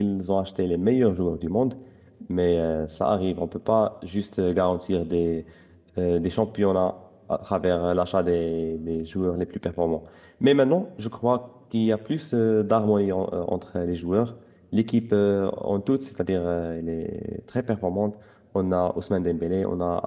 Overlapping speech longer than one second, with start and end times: none

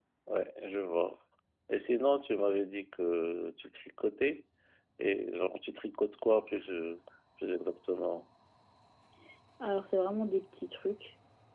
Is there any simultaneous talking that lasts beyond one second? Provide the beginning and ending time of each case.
none

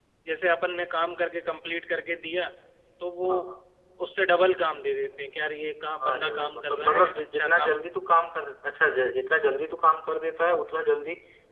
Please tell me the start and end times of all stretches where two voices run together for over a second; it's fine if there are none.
6.1-7.8

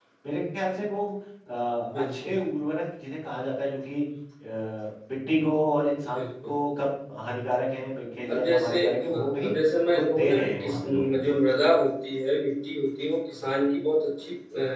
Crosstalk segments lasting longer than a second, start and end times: 8.3-9.5, 9.9-11.4

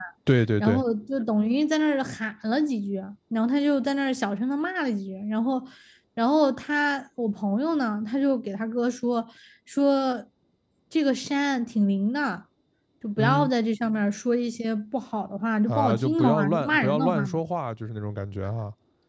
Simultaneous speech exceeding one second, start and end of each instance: 15.7-17.4

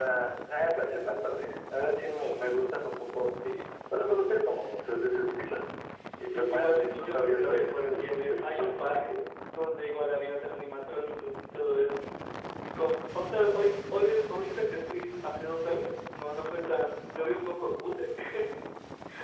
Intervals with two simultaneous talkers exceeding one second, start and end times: 6.3-8.7

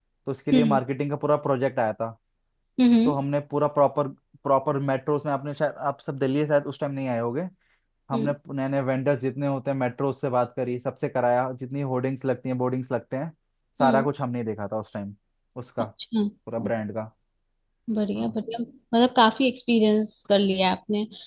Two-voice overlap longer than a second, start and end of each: none

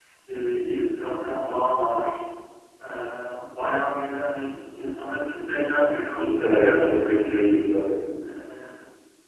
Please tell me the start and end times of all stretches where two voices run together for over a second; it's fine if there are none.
6.1-7.5

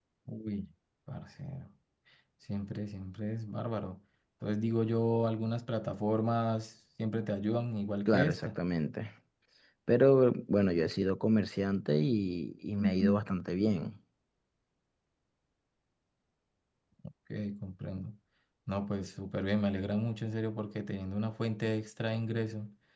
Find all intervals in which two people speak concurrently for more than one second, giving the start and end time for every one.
none

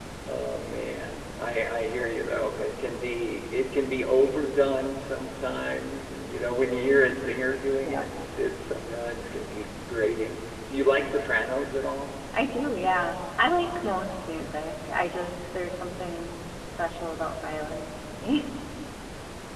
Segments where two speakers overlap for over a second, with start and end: none

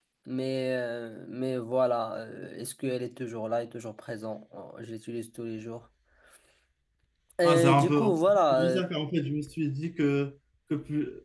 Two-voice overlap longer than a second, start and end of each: 7.4-8.8

